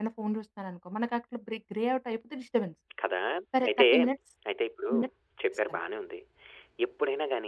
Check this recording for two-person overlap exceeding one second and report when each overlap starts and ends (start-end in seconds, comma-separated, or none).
none